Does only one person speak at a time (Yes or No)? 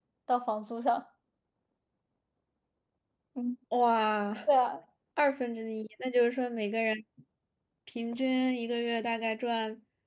Yes